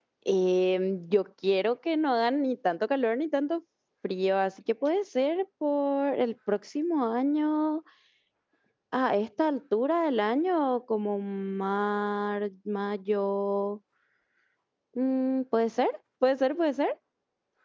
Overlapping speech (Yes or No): No